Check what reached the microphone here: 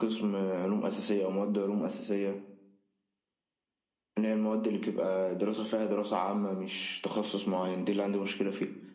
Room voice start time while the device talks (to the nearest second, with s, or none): none